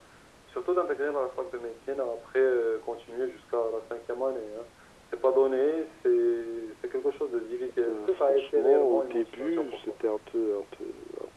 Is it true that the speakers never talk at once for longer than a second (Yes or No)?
No